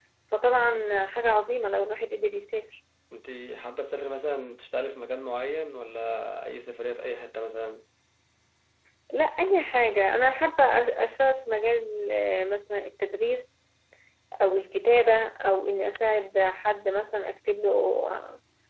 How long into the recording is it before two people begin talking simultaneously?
none

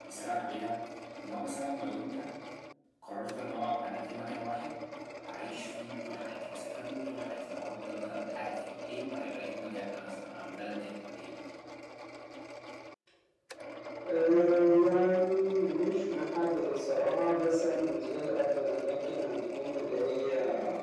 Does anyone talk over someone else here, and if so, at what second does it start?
none

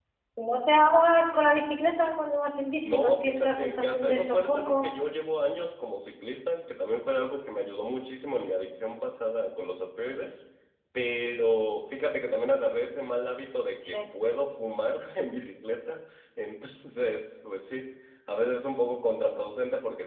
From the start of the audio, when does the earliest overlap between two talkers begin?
2.8 s

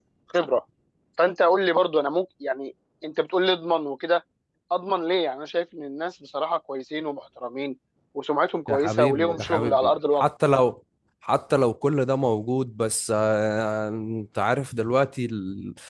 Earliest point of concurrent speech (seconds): 8.7 s

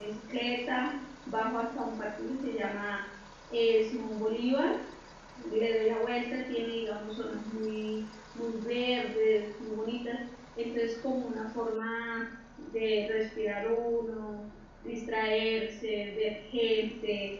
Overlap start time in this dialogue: none

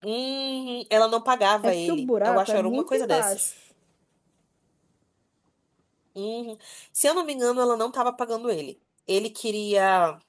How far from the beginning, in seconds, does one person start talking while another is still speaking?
1.6 s

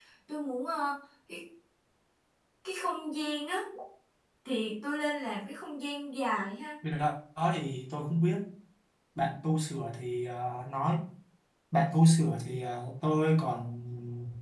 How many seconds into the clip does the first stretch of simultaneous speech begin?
none

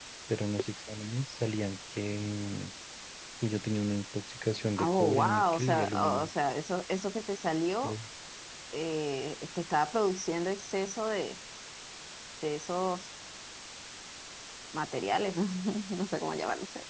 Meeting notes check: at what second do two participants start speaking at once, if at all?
4.8 s

